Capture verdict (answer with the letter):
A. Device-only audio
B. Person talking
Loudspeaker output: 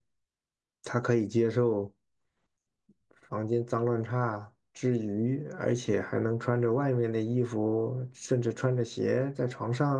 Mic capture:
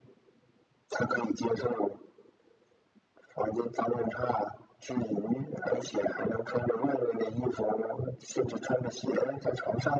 A